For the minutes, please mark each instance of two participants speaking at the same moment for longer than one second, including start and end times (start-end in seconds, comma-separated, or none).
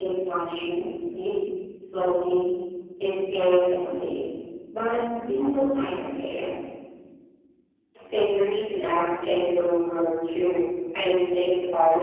none